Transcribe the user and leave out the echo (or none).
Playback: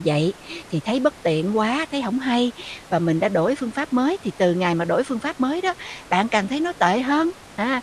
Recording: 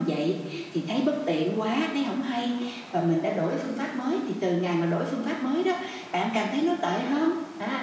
none